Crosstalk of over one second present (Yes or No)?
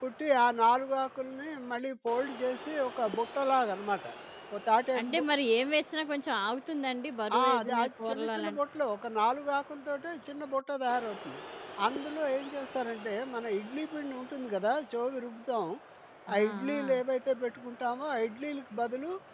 Yes